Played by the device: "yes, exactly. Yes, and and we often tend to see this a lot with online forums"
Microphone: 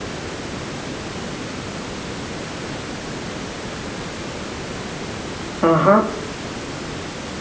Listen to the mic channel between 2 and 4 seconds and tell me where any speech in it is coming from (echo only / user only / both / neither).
neither